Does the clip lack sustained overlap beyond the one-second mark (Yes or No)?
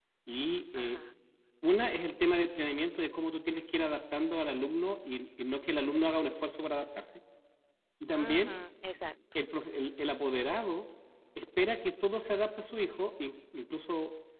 Yes